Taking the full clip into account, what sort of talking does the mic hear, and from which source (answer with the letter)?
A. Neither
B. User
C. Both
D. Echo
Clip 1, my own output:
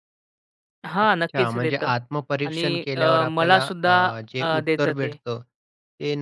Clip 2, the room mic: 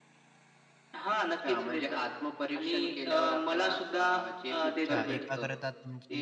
C